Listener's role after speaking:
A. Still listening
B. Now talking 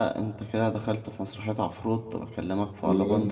A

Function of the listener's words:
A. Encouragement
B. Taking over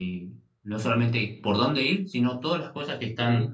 A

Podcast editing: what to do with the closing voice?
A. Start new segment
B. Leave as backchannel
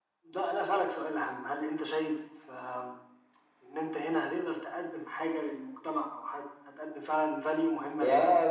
A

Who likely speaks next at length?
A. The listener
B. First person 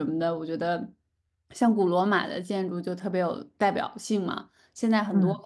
B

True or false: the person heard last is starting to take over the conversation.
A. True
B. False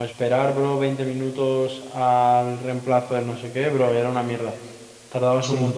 B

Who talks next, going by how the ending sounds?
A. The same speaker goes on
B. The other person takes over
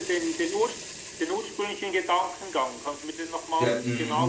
B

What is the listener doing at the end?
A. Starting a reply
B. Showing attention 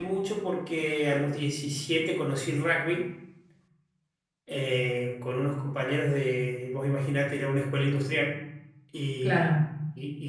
B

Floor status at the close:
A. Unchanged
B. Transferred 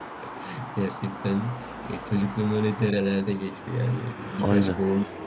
A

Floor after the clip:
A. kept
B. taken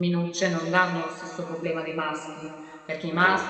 A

